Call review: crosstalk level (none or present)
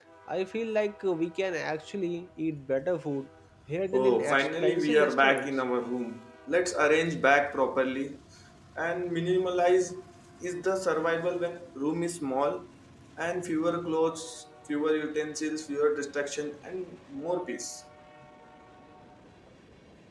present